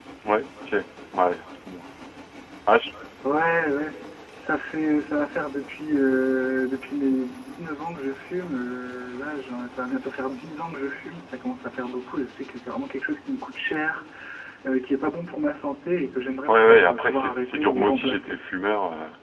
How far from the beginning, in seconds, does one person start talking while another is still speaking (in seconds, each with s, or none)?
16.5 s